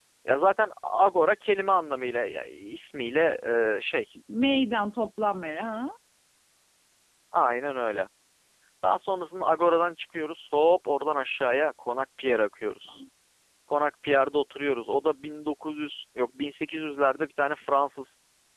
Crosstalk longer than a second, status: none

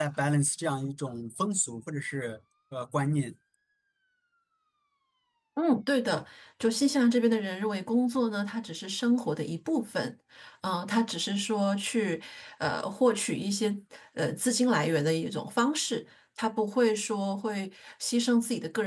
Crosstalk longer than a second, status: none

